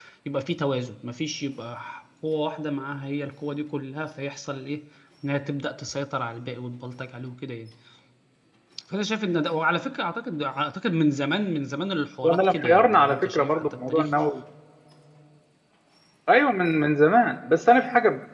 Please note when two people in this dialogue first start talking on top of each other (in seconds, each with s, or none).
12.2 s